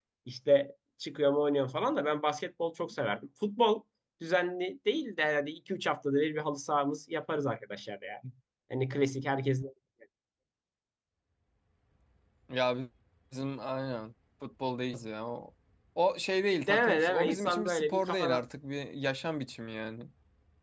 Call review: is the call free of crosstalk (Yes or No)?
No